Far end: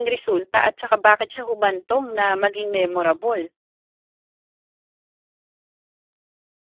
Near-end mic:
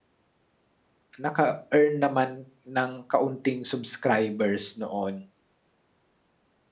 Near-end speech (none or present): present